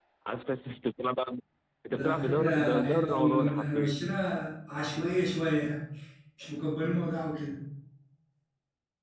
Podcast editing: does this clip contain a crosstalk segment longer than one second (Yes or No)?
Yes